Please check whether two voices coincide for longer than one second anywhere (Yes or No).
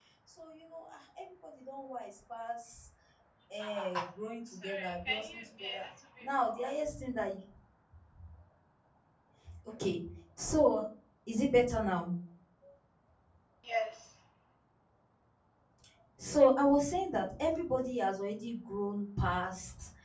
Yes